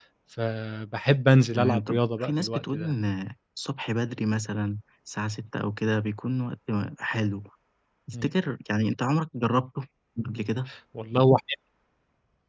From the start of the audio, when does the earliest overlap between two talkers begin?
2 s

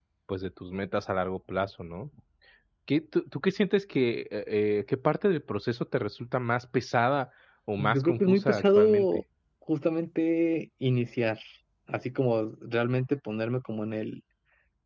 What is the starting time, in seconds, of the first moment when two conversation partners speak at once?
8 s

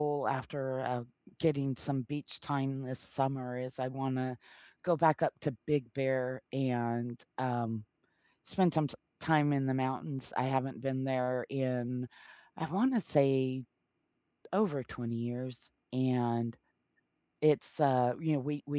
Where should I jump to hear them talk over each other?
none

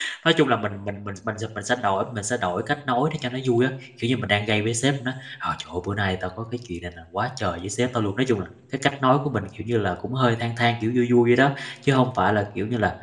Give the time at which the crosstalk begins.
none

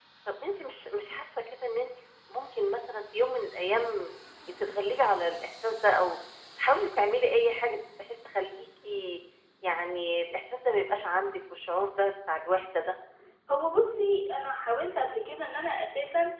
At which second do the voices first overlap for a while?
none

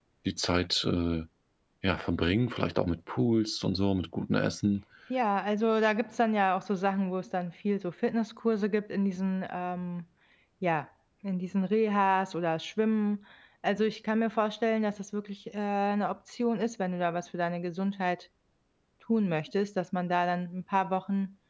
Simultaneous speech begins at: none

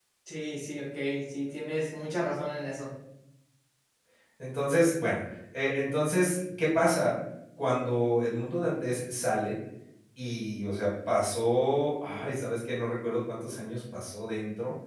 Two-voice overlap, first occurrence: none

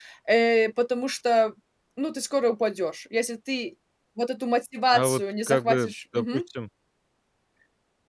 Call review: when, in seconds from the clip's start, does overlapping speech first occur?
5 s

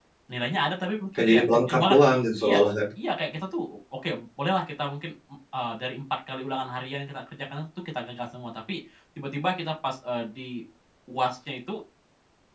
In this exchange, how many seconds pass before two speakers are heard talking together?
1 s

